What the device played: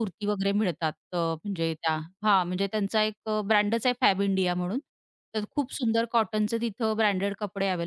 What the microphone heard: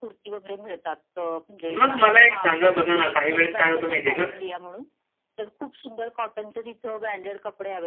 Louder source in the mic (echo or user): user